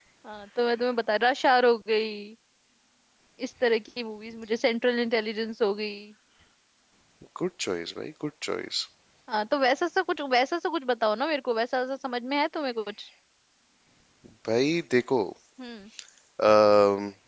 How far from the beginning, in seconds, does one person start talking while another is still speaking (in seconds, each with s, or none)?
none